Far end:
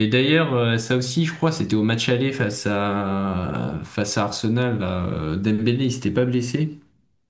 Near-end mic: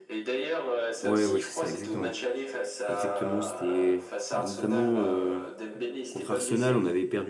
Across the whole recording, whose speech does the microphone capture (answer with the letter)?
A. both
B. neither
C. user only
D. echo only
A